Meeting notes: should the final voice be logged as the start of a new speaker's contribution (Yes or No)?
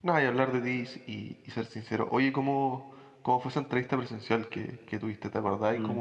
No